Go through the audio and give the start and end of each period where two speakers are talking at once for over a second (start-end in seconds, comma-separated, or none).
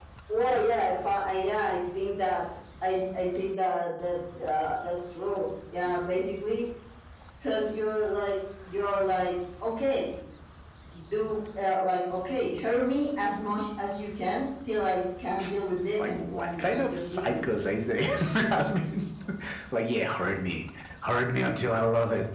16.1-17.4